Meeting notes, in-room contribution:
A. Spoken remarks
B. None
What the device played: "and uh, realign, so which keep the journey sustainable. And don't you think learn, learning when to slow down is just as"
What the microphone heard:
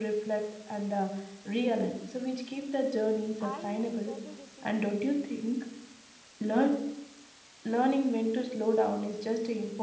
A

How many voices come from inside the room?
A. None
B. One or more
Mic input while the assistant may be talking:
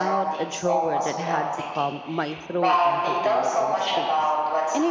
B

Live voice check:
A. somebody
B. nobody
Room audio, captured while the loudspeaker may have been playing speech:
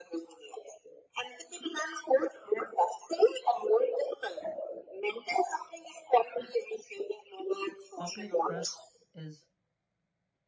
A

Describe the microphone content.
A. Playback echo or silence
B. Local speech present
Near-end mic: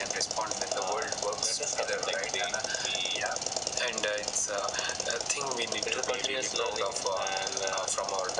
A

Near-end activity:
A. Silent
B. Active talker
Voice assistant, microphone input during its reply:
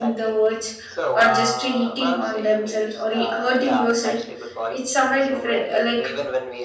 B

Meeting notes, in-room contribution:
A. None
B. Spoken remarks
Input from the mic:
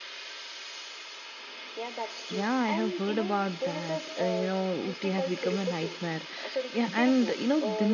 B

